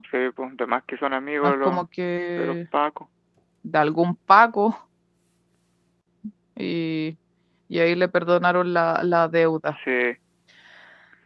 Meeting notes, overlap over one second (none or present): none